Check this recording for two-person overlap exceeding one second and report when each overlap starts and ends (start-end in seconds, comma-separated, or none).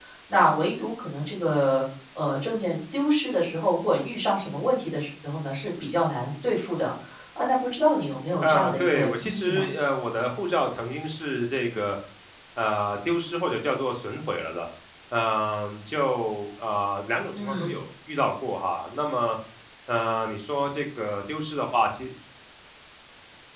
8.4-9.7